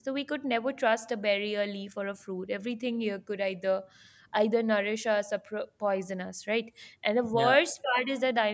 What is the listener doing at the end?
listening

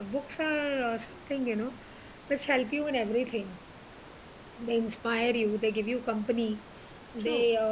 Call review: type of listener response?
listening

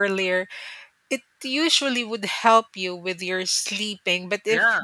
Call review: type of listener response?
listening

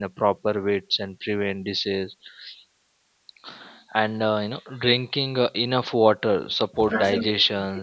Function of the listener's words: listening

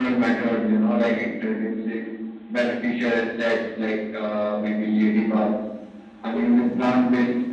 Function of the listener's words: listening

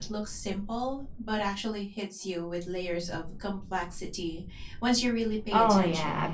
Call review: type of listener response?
taking over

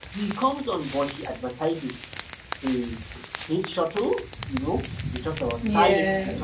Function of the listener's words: listening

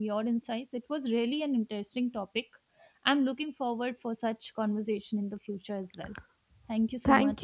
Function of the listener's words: taking over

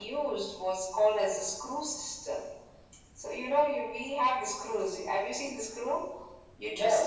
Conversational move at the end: listening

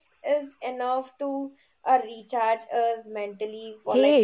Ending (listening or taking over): taking over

